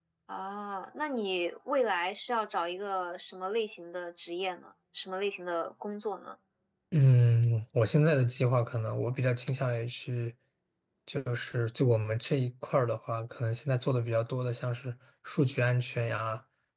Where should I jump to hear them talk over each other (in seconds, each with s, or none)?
none